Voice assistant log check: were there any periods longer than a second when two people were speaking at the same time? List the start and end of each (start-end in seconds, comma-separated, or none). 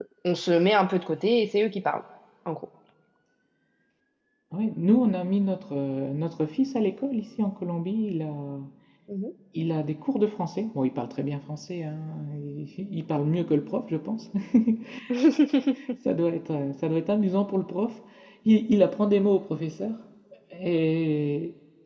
none